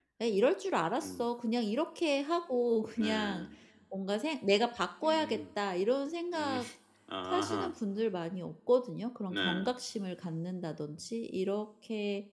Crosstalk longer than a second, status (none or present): none